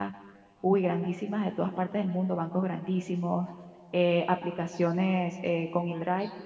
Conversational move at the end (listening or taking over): listening